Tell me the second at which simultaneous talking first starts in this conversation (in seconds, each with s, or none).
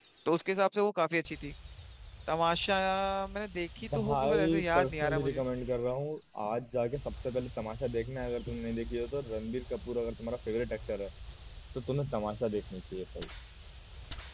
3.9 s